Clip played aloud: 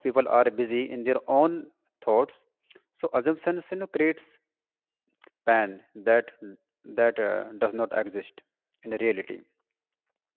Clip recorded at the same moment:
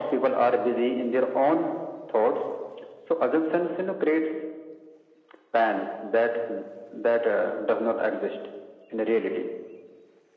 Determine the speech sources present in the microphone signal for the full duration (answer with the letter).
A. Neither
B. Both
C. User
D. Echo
D